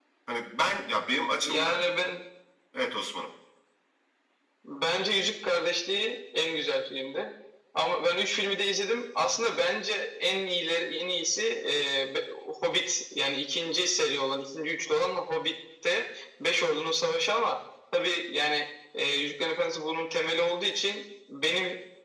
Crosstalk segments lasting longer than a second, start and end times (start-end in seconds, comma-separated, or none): none